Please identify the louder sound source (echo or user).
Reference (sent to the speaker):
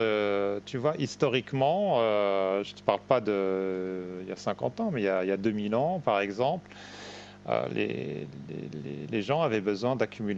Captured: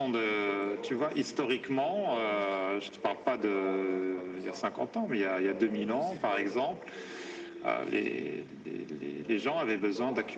echo